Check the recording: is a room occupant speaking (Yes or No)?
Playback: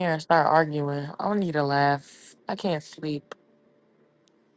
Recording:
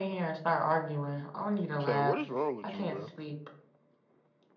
Yes